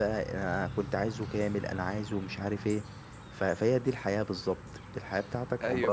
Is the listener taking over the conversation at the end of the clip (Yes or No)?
Yes